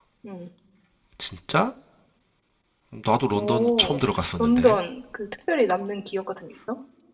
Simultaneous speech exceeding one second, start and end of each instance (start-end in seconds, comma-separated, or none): 3.3-4.7